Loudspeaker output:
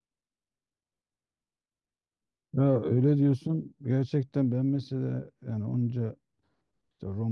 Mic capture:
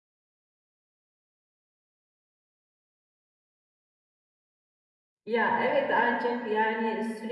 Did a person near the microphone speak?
Yes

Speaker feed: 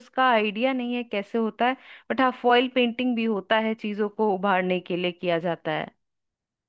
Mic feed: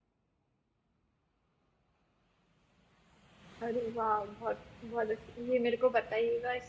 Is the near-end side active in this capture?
Yes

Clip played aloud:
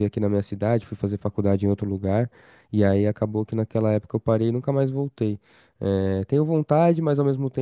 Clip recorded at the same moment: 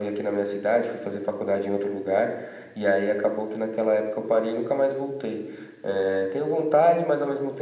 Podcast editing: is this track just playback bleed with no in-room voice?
Yes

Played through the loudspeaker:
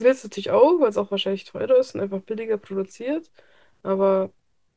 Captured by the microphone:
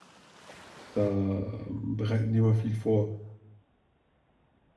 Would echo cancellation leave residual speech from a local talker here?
Yes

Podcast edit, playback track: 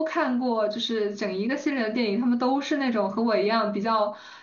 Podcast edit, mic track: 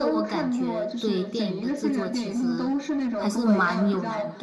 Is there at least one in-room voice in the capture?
Yes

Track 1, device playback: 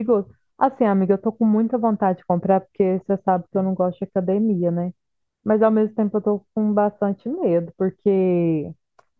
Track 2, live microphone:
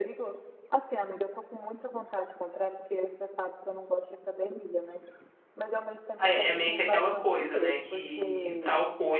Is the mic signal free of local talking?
No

